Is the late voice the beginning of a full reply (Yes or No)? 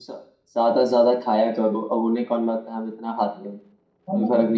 Yes